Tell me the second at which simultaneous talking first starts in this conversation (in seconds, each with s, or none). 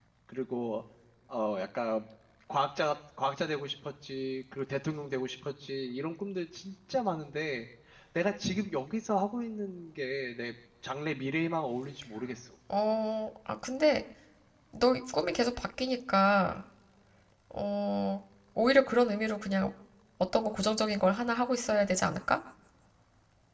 none